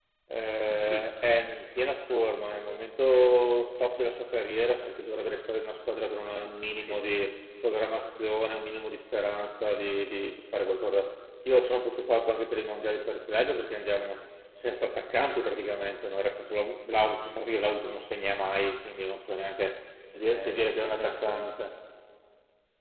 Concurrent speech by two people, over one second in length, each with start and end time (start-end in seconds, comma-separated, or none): 20.3-21.5